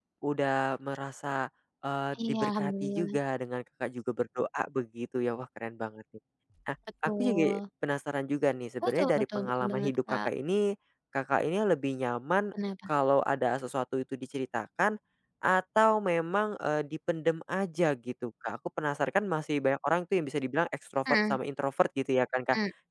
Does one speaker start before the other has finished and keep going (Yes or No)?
Yes